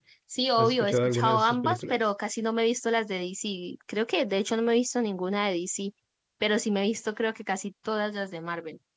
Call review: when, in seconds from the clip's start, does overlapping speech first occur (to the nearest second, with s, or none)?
1 s